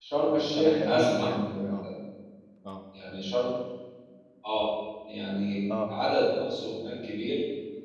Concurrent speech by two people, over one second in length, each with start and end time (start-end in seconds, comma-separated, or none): 0.6-1.9